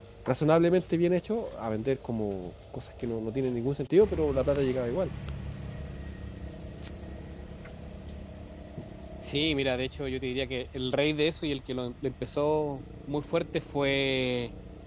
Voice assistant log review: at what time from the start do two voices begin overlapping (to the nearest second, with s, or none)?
none